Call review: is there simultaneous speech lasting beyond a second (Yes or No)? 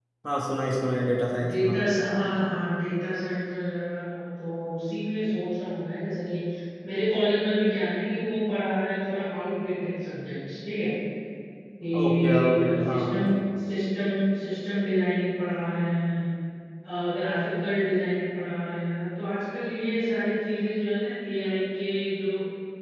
Yes